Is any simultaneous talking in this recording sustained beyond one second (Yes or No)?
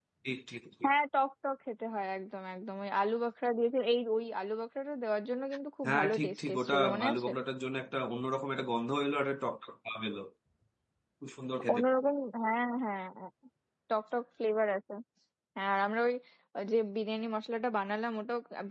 Yes